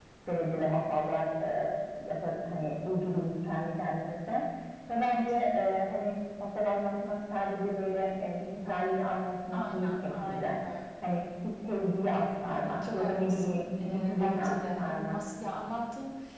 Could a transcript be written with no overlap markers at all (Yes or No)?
No